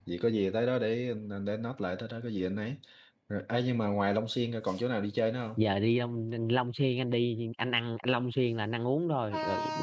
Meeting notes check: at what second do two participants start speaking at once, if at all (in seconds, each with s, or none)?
none